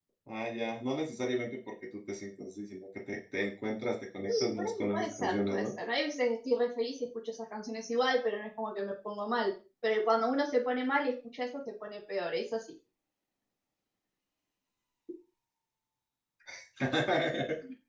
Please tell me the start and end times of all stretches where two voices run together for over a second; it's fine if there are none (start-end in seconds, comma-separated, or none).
4.3-5.7